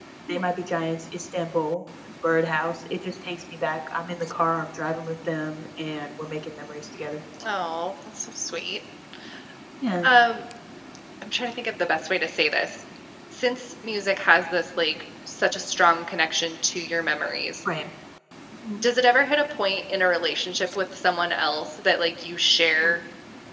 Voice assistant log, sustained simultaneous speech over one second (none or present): none